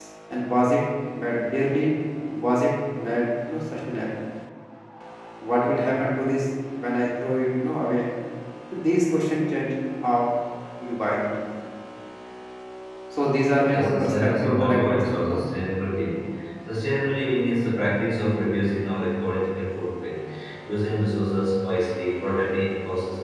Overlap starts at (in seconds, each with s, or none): 13.7 s